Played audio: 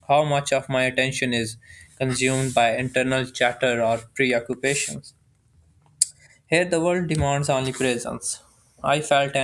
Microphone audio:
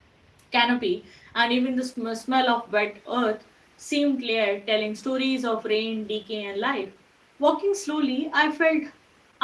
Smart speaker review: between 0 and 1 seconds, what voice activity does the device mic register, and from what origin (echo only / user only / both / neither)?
user only